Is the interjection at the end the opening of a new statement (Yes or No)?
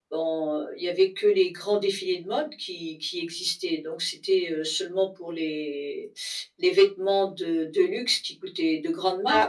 No